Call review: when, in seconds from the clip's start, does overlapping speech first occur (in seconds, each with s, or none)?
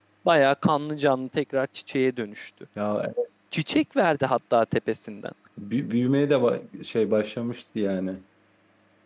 none